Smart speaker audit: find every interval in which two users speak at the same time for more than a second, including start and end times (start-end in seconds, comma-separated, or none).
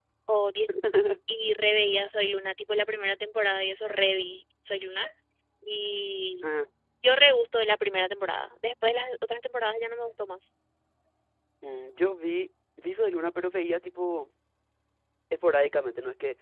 none